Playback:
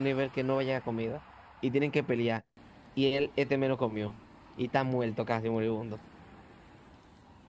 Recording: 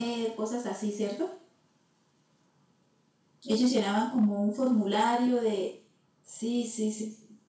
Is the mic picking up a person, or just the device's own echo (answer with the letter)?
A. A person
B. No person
A